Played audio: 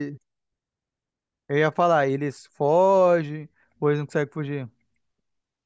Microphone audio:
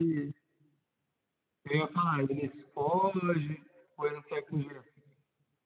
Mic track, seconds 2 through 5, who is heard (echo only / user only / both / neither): echo only